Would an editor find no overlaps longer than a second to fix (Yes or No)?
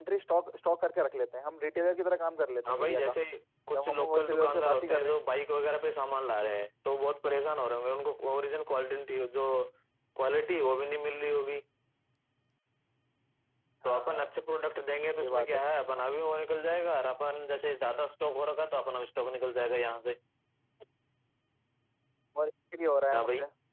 No